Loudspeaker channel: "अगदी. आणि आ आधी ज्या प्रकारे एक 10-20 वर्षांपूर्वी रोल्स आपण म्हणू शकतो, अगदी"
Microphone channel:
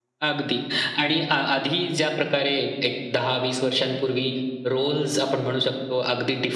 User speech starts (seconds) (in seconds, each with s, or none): none